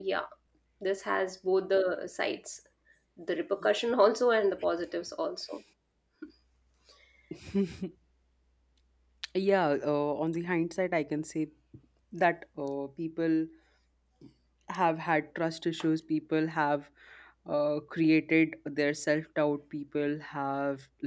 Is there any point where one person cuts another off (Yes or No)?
No